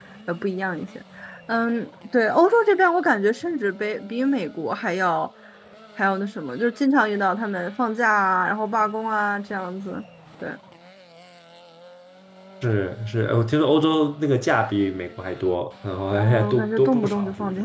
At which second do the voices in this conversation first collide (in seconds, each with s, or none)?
16.1 s